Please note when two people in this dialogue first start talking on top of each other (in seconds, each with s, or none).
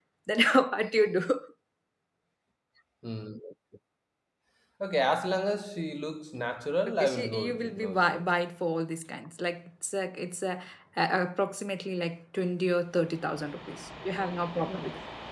7.0 s